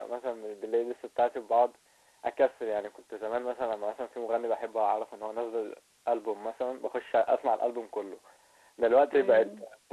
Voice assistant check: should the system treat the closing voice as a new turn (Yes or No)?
No